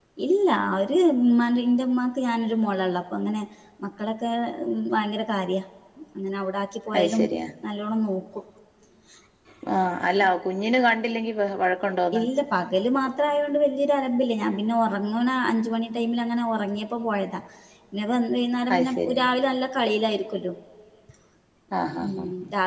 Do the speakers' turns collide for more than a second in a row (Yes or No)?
No